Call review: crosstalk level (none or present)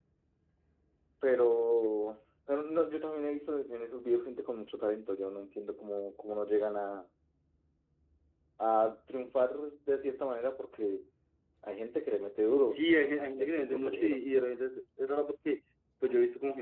present